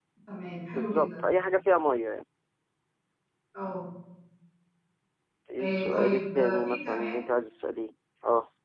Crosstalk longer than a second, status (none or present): present